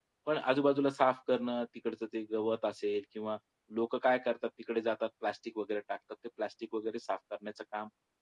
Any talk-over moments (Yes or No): No